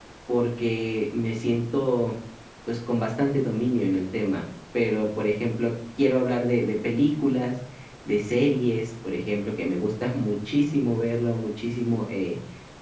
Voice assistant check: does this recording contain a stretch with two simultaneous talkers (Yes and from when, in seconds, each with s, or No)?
No